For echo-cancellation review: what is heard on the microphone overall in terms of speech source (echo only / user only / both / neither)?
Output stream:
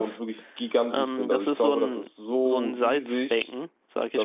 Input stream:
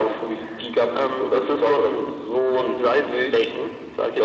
echo only